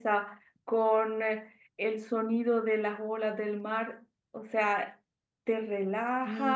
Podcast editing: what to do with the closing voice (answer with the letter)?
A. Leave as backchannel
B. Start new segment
A